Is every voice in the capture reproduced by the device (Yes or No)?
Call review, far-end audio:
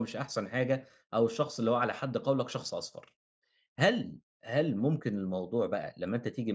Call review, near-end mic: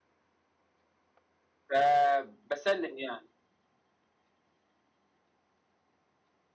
No